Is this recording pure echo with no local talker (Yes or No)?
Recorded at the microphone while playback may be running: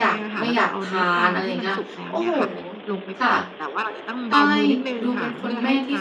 No